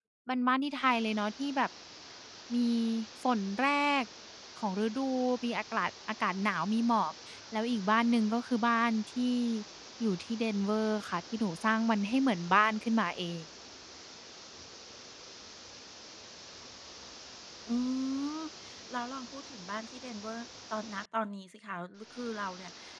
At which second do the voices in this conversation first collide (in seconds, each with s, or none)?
none